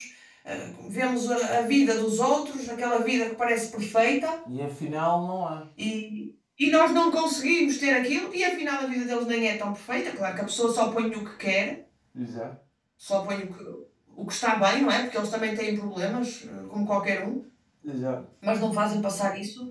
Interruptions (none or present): none